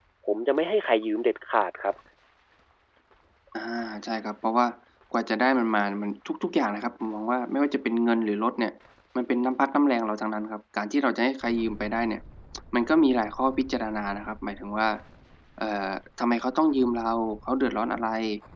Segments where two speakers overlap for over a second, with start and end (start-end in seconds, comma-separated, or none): none